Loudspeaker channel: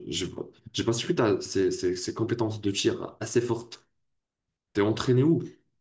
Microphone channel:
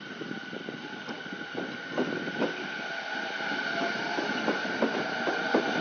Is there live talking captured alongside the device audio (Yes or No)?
No